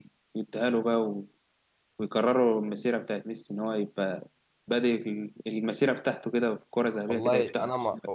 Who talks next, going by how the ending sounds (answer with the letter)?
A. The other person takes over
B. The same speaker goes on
A